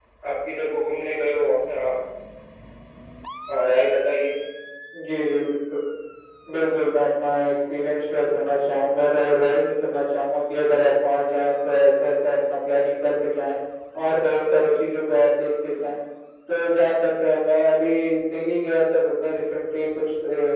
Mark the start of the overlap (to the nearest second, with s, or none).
none